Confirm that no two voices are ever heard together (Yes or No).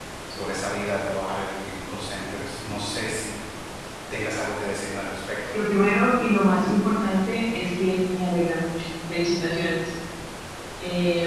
Yes